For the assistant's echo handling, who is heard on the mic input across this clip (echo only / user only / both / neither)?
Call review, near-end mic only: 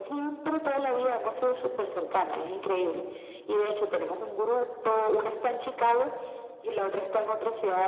echo only